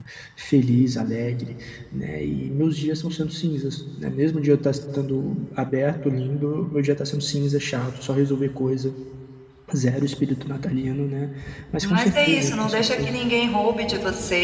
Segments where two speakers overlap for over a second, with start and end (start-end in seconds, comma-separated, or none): 11.8-13.2